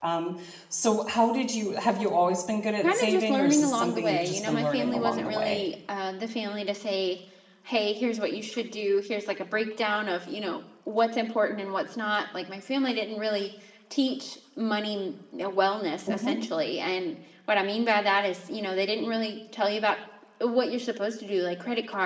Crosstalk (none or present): present